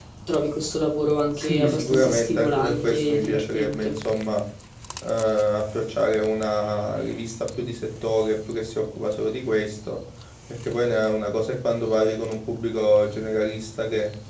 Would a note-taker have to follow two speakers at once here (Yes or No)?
Yes